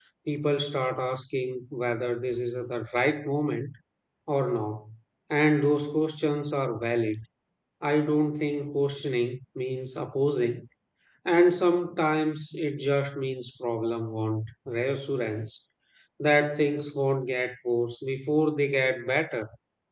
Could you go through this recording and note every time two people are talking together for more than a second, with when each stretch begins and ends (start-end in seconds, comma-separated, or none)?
none